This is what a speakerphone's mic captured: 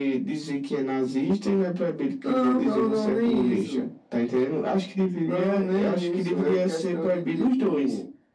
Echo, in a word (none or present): present